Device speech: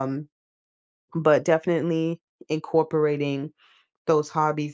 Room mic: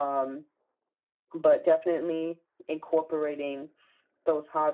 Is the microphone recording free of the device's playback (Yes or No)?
No